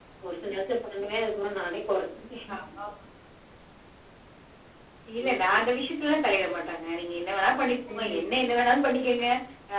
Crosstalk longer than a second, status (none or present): none